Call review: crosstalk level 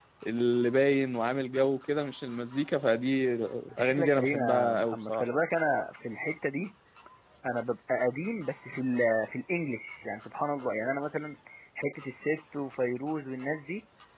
present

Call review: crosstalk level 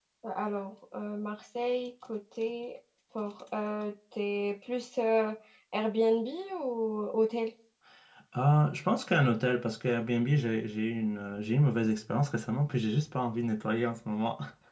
none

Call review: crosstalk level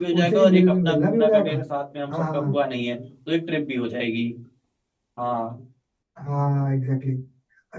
present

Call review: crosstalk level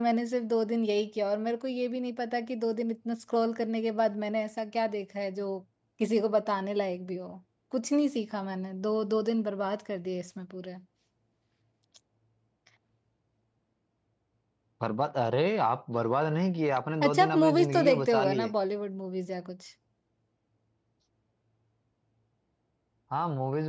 present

